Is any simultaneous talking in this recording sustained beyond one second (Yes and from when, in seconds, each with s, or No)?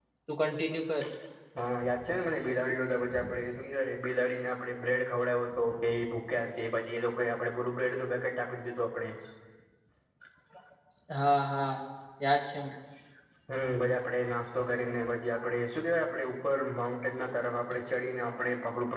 No